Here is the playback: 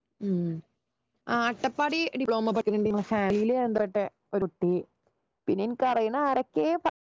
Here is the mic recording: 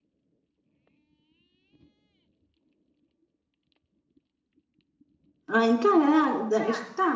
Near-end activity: present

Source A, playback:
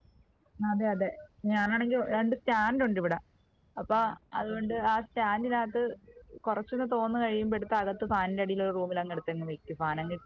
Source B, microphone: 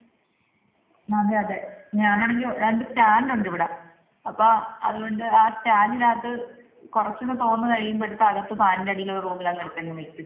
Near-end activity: none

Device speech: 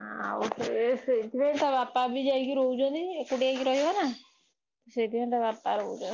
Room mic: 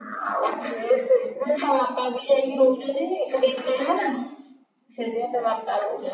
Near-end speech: none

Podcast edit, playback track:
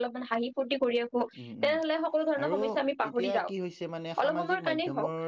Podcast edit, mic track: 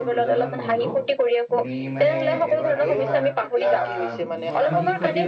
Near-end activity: present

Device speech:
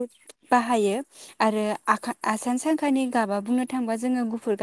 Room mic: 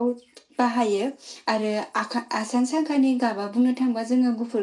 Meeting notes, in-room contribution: none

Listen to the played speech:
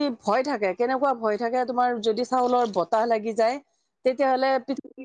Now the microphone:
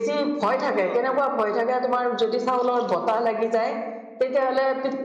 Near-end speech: present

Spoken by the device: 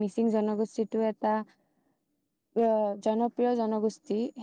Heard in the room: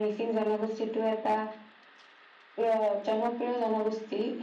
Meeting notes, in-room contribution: none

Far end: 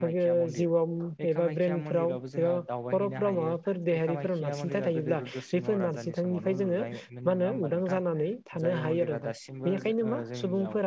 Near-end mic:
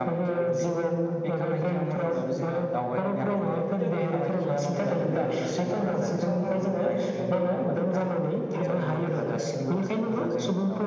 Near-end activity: present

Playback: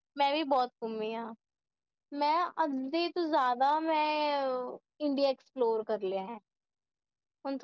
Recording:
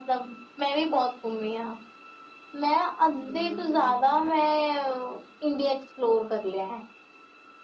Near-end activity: present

